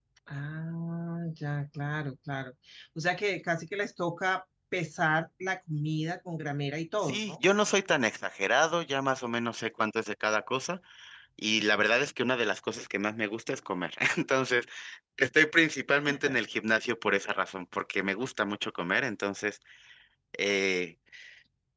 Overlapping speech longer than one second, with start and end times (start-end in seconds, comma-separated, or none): none